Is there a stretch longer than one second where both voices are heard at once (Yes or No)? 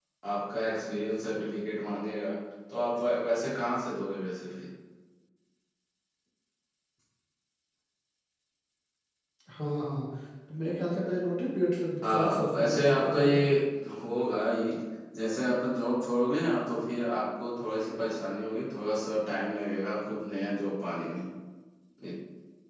Yes